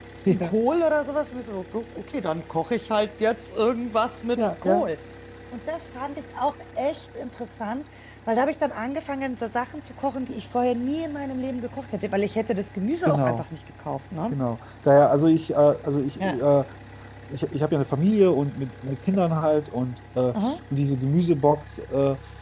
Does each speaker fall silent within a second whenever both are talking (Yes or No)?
Yes